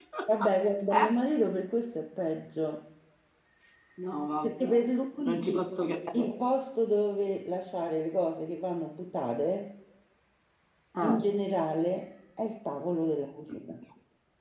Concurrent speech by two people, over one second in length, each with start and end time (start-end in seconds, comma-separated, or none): none